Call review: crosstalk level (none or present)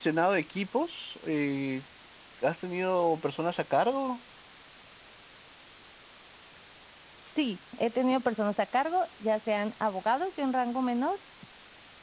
none